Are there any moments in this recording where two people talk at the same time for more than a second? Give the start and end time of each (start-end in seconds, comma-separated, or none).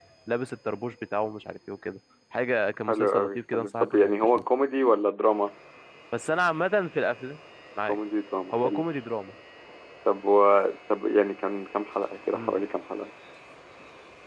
2.9-4.4